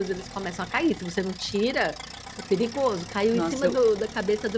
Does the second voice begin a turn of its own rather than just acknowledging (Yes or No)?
No